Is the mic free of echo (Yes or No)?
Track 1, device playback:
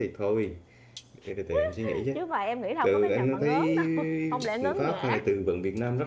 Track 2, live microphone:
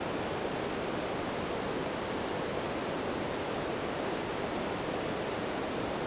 Yes